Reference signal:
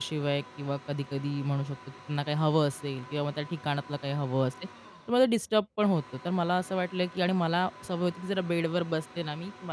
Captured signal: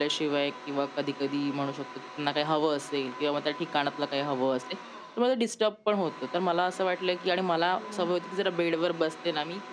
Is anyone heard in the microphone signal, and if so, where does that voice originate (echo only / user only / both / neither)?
both